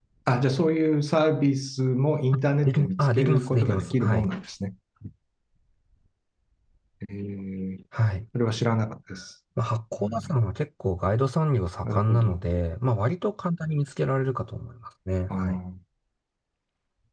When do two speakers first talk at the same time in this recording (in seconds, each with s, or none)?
2.3 s